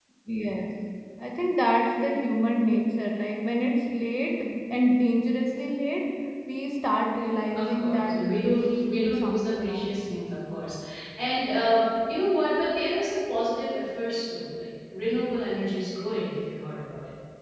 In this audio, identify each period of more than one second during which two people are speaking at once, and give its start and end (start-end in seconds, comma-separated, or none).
7.5-9.9